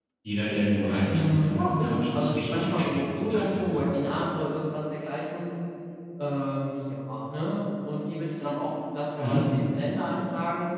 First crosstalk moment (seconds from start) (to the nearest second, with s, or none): 1 s